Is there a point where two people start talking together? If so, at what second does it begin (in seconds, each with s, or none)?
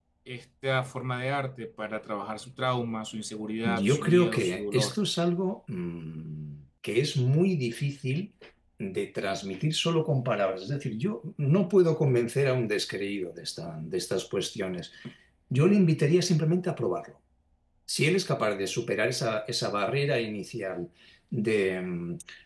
3.6 s